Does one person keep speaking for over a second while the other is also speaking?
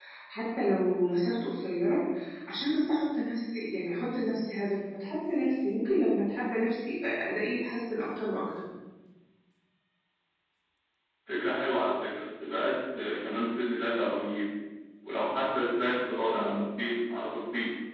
No

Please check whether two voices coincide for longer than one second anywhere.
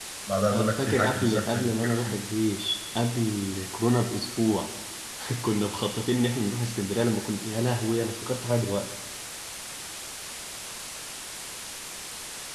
Yes, from 0.5 s

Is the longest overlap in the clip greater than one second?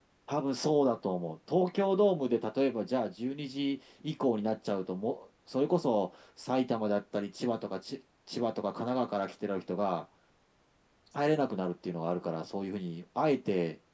No

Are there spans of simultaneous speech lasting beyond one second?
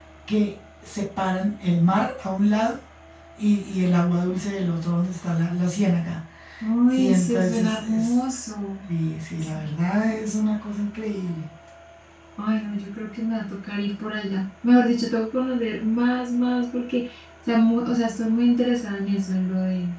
Yes, from 6.9 s

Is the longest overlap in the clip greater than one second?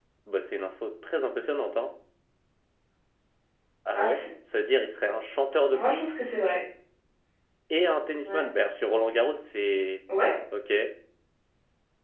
No

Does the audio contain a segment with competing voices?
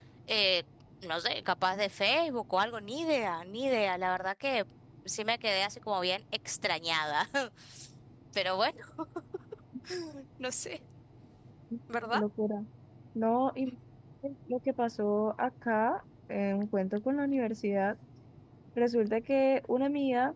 No

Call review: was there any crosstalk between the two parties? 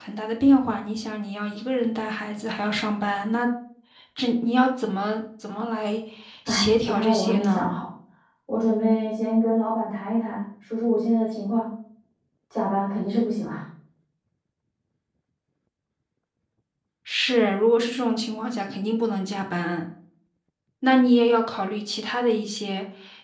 Yes, from 6.5 s

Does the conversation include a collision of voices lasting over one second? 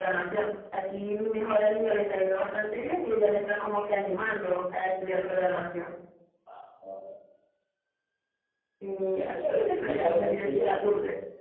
Yes, from 9.1 s

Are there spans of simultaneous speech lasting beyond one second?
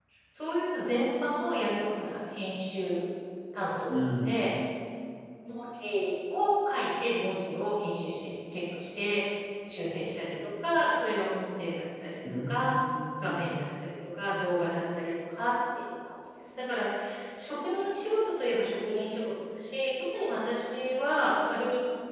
No

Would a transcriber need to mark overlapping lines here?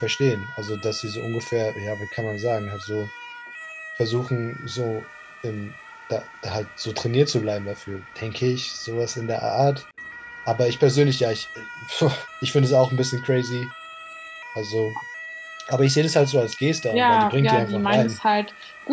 Yes, from 16.9 s

